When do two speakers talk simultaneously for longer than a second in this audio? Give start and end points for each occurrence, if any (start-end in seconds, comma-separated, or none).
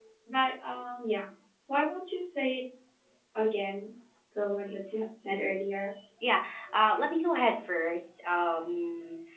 none